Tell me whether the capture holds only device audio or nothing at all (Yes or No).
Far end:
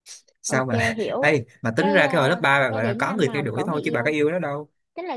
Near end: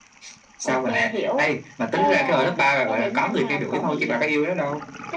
Yes